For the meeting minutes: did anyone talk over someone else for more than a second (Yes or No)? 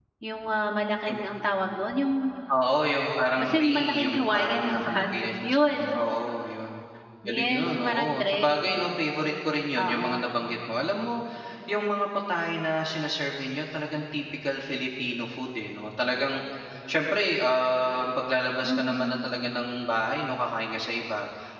Yes